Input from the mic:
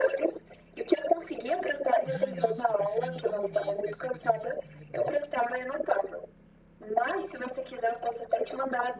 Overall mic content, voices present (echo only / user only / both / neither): both